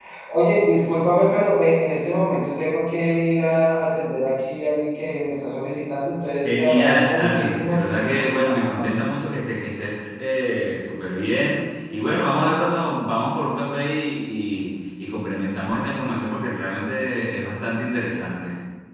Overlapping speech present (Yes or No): Yes